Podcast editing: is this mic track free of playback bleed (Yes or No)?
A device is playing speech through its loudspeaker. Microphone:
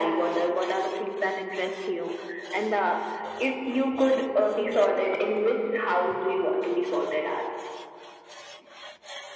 No